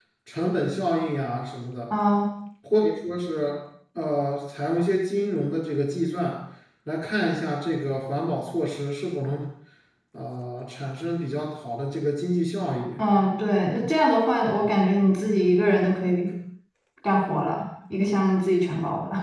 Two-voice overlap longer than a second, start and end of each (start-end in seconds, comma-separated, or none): none